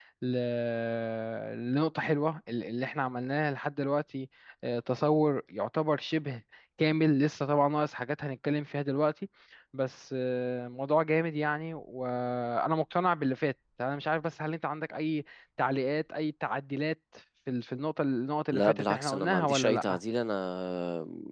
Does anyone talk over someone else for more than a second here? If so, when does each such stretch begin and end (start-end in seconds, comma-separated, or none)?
18.5-20.0